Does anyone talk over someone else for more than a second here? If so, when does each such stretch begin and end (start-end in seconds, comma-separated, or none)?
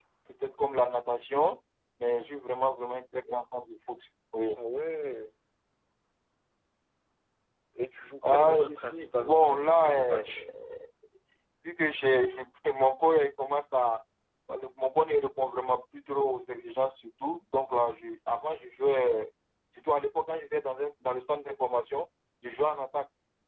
8.3-10.2